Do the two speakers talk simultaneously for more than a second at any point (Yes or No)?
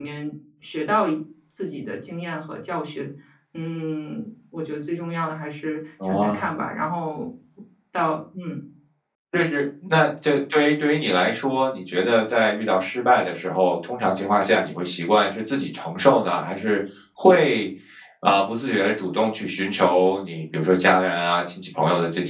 No